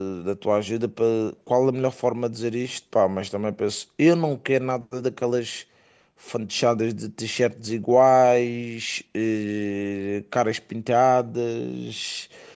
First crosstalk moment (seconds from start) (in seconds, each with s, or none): none